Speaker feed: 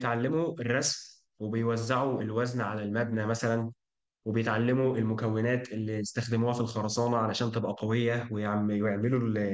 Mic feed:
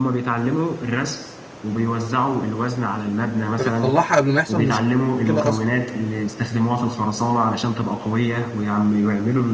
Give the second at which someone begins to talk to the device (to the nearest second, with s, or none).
4 s